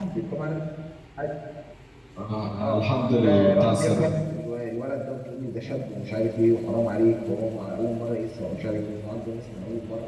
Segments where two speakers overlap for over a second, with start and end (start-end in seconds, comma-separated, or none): 2.6-4.1